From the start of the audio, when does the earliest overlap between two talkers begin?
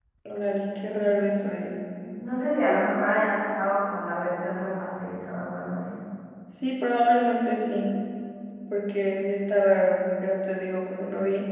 none

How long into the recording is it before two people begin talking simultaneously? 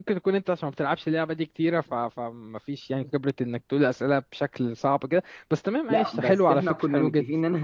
6 s

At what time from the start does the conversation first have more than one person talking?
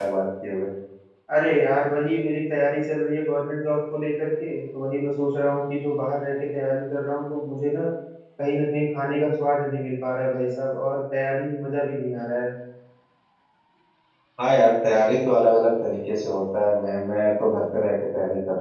none

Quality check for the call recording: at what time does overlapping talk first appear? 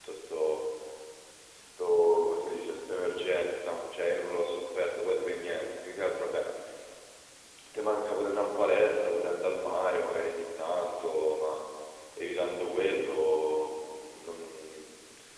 none

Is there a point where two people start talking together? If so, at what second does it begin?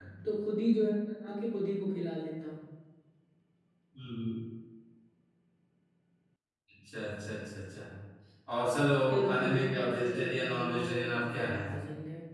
9 s

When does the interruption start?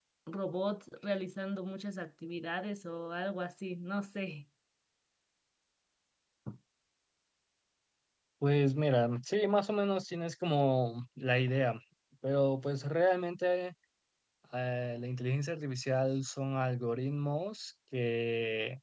none

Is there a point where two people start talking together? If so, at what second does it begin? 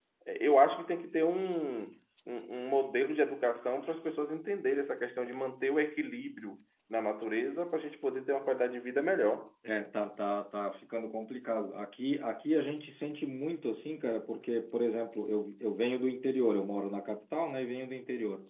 none

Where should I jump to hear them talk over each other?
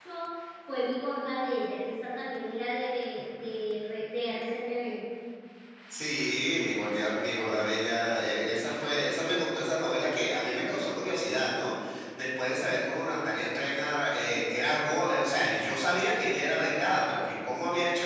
none

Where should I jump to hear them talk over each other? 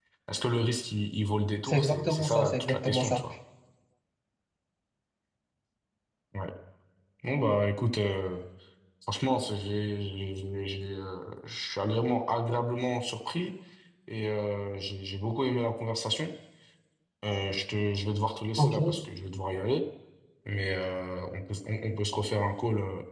2 s

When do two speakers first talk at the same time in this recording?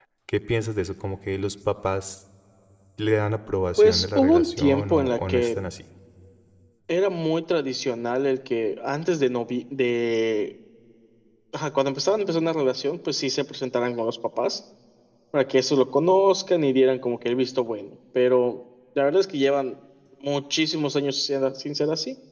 4 s

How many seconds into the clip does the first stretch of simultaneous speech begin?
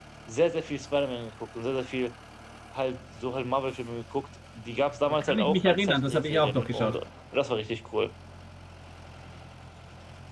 5 s

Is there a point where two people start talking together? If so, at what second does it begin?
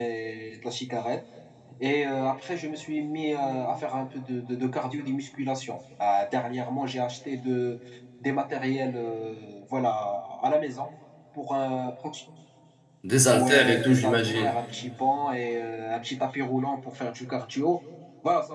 13 s

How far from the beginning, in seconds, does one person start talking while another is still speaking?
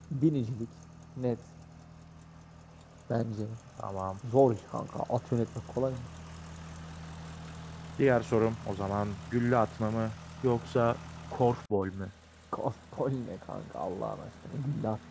none

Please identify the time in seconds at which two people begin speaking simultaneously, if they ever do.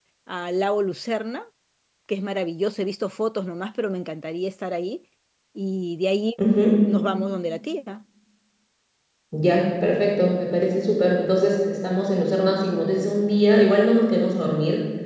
none

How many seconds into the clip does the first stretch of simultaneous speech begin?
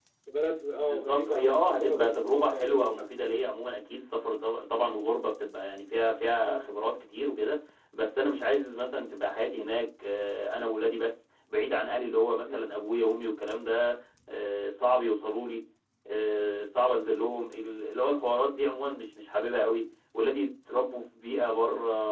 1 s

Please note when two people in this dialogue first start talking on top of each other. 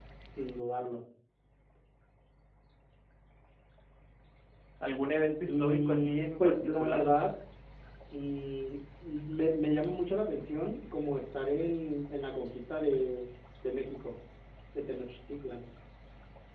5 s

